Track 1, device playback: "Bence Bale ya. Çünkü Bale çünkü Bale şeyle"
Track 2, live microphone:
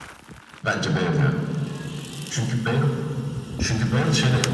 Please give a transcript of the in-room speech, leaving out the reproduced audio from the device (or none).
none